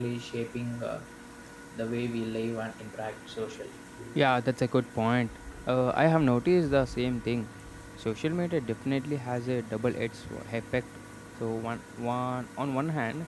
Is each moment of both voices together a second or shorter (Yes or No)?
Yes